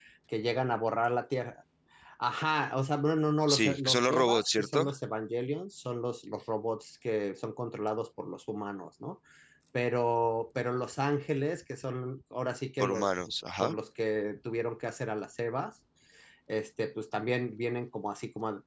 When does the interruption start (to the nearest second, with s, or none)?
3 s